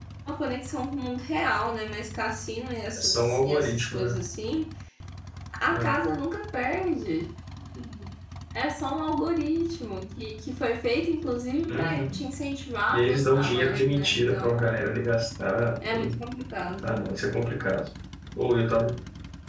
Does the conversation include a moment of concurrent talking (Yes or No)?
Yes